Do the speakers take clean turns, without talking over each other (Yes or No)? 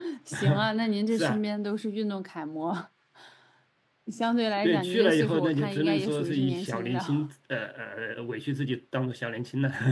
No